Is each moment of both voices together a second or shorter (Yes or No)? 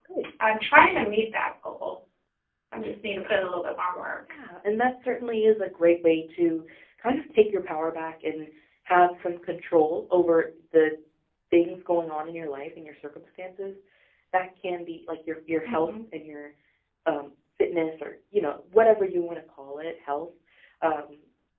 Yes